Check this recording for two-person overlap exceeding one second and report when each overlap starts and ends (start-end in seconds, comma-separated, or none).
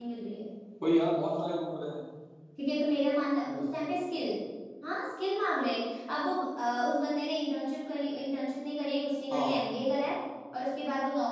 none